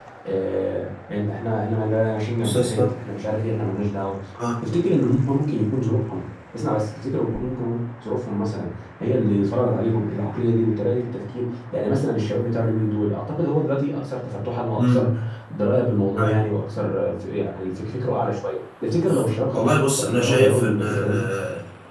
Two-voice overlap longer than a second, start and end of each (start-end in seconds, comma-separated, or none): 19.5-21.2